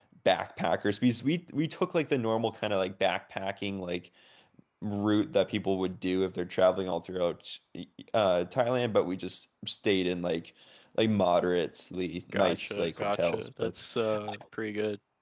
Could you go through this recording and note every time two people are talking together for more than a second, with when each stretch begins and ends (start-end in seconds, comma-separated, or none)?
12.3-13.8